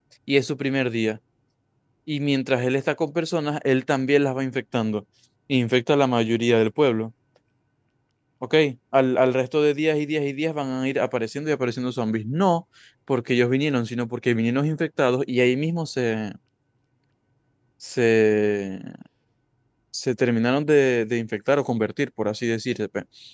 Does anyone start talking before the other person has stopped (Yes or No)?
No